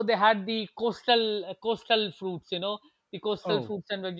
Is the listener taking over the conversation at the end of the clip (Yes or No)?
No